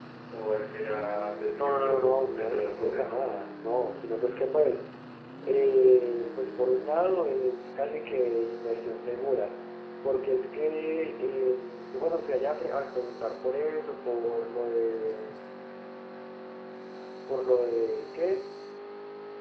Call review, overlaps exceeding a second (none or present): present